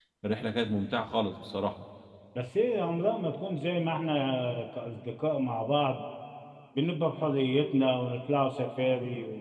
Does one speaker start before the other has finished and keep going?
No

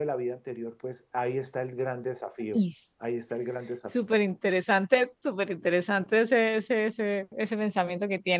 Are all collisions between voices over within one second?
Yes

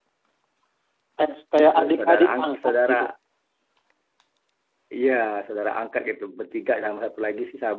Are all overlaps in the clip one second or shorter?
No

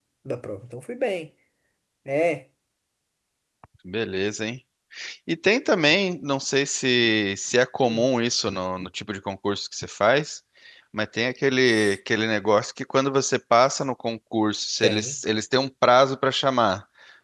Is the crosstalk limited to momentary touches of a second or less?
Yes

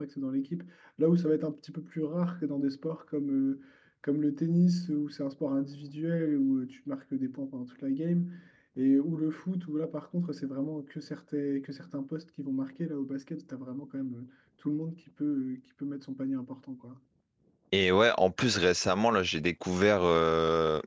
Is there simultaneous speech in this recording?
No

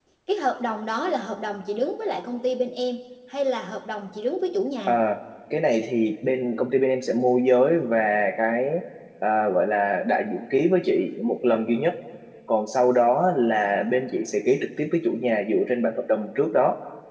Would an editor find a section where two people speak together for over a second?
No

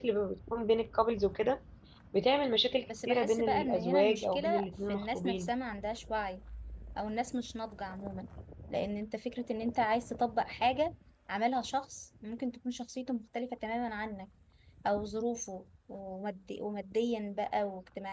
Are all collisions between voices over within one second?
No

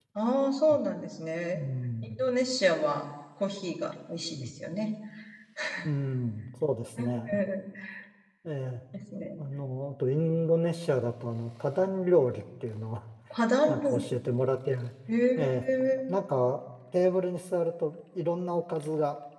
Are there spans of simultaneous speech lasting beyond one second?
No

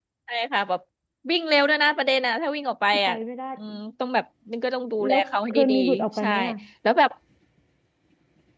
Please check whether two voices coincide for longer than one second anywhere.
Yes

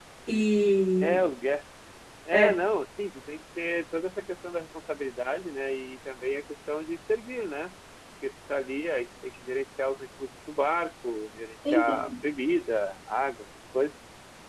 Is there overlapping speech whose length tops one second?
No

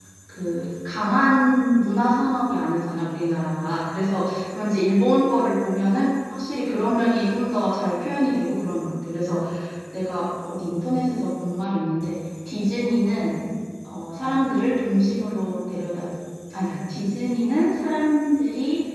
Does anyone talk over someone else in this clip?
No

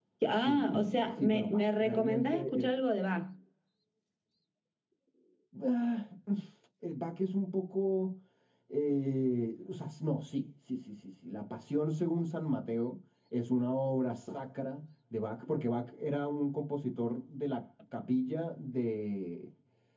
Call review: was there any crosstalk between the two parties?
Yes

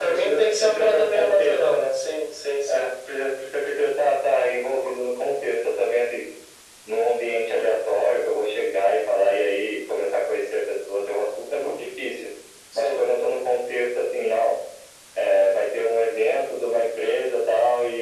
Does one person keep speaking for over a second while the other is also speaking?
Yes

